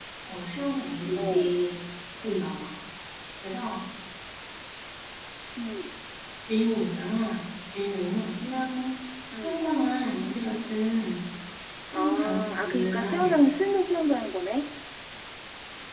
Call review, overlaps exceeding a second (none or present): present